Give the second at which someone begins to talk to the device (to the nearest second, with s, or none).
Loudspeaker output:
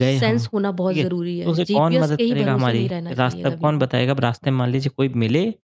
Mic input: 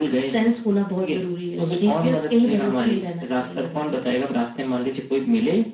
none